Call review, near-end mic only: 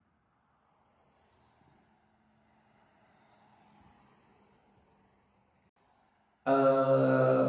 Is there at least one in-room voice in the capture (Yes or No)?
Yes